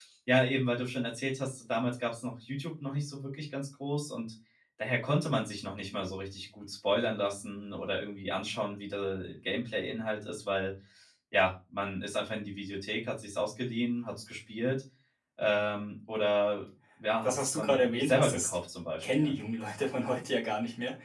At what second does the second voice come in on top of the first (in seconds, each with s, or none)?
17.2 s